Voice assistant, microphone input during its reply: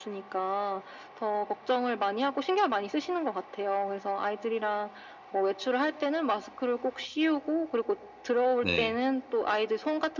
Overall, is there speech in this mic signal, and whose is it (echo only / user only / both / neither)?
both